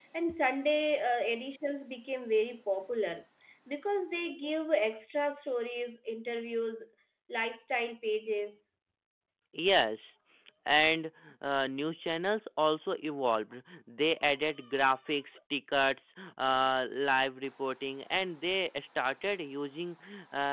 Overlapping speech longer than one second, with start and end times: none

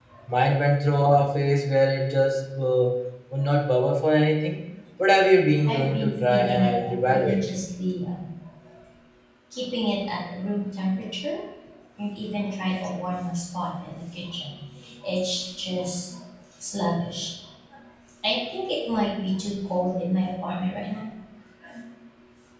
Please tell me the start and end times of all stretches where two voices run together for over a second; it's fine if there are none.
5.7-7.4

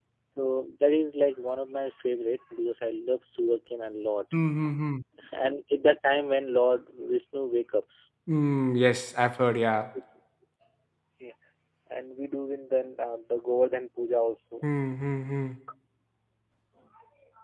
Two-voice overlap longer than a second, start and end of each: none

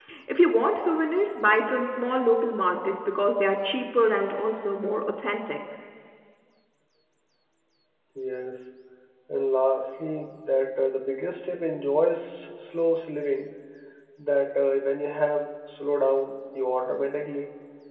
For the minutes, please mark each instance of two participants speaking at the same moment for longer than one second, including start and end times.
none

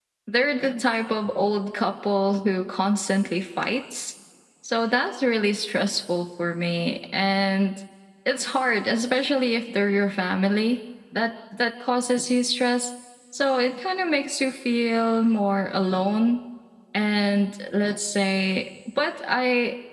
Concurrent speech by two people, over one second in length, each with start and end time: none

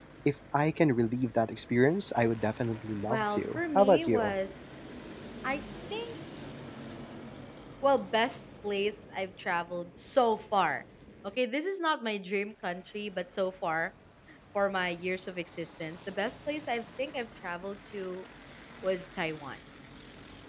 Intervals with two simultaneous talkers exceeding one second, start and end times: 3.0-4.3

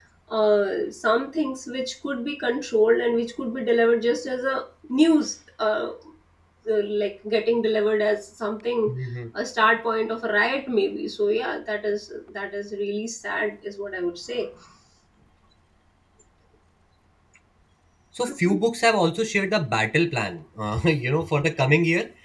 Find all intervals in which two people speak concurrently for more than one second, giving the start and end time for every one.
none

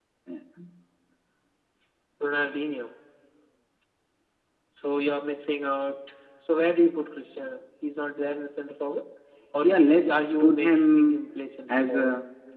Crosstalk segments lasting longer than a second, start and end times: 9.6-11.2

